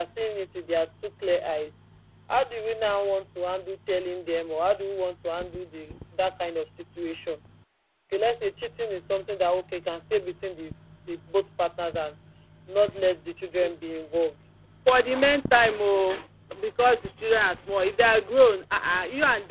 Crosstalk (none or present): none